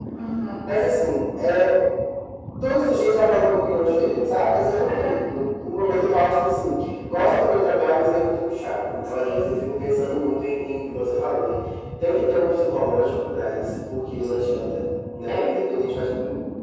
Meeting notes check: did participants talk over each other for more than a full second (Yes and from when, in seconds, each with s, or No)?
No